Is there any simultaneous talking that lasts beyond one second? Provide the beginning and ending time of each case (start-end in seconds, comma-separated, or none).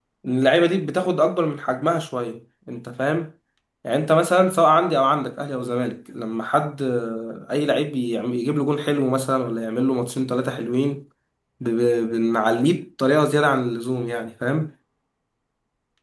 none